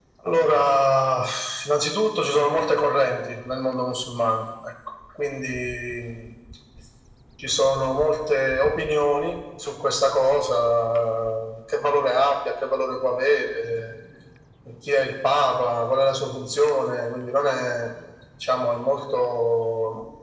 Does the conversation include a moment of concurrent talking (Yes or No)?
No